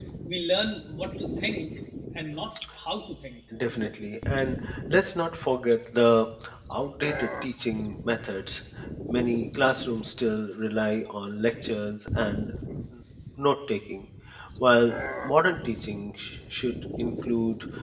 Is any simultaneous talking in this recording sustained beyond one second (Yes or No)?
No